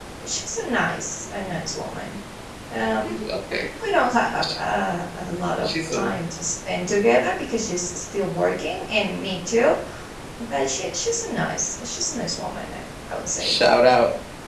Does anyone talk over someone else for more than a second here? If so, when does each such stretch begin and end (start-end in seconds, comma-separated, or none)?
none